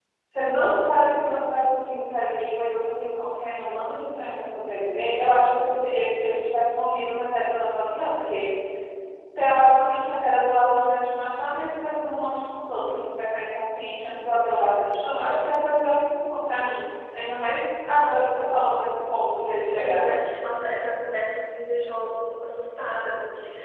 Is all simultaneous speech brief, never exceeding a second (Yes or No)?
Yes